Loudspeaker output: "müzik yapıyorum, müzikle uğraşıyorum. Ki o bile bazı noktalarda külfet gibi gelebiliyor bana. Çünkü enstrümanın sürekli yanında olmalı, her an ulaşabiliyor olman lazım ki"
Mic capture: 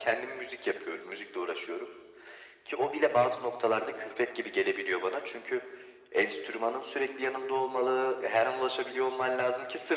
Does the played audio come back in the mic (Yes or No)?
Yes